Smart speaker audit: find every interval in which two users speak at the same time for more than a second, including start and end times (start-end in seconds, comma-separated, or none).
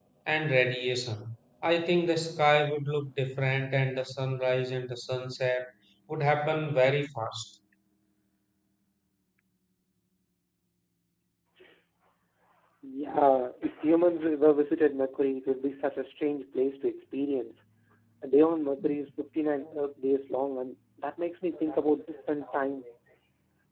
none